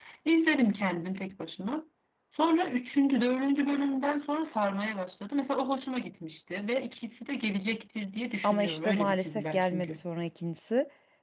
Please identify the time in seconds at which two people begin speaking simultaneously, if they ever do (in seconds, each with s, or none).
8.4 s